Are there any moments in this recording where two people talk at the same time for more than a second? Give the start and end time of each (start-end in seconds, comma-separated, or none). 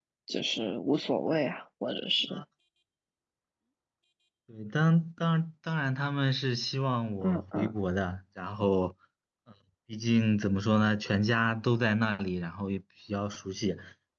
none